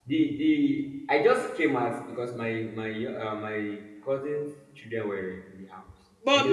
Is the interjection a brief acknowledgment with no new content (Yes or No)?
No